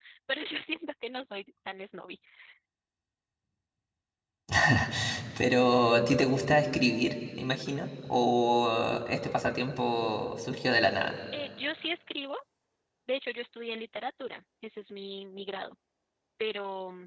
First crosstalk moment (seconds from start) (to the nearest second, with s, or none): none